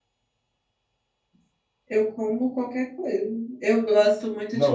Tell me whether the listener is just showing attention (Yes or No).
No